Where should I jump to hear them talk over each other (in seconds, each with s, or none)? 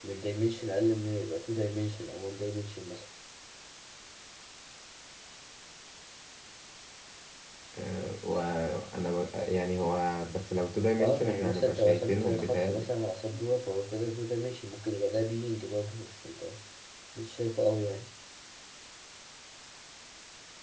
11.0 s